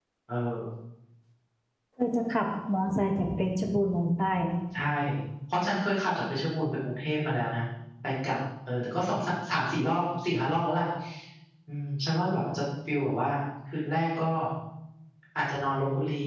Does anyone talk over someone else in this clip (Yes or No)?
No